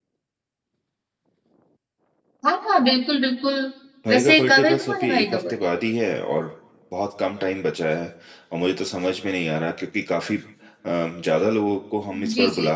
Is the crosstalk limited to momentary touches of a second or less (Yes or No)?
No